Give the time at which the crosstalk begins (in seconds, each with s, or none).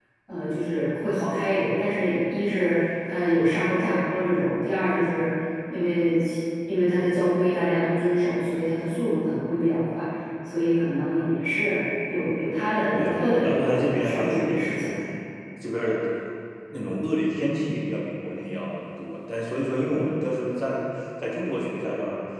12.9 s